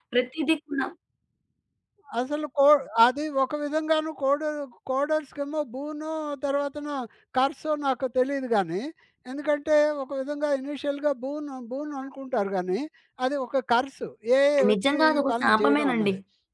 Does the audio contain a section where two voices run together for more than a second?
Yes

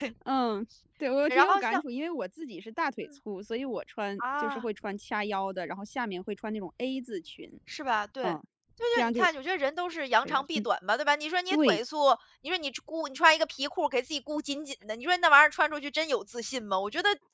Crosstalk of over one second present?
No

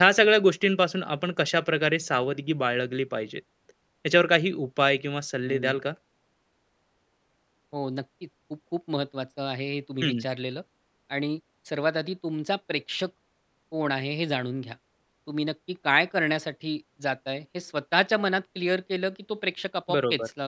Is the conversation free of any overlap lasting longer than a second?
Yes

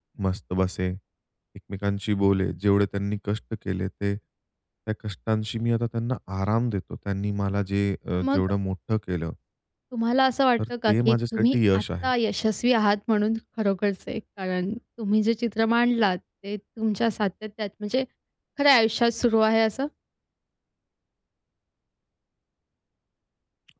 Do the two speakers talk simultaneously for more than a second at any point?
Yes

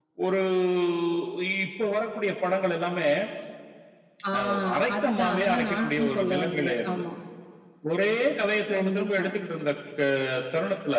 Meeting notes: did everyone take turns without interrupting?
No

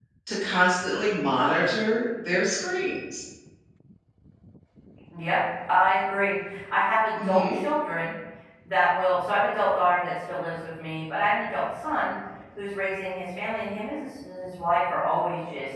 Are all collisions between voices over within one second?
Yes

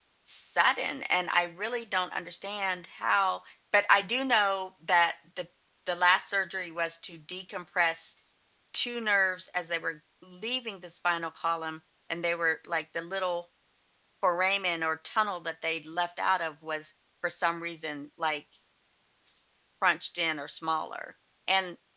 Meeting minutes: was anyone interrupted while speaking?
No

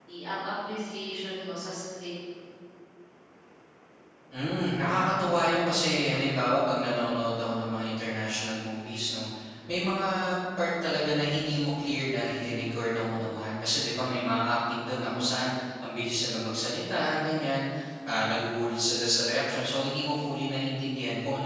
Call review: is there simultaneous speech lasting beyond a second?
No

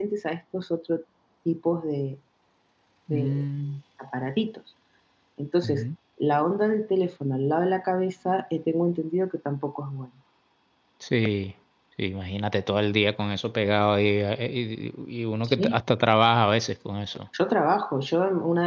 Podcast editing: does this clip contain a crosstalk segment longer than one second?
No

